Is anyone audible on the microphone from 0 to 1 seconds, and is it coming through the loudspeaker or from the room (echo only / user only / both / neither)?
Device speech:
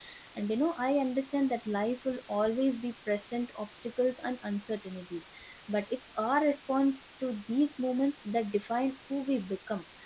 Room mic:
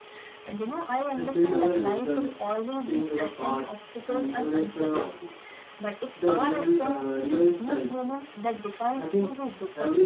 echo only